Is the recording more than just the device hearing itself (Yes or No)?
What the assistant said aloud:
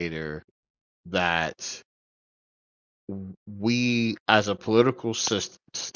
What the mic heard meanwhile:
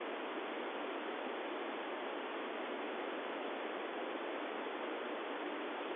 No